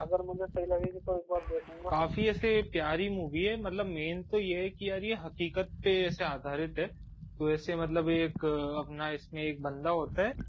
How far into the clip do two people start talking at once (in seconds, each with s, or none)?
none